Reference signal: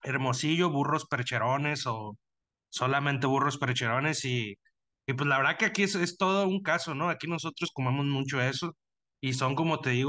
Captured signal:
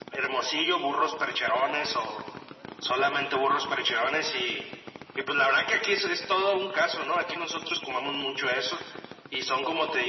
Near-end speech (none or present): none